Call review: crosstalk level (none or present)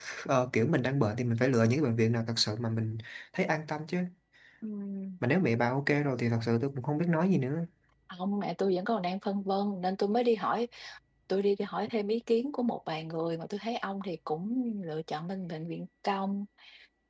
none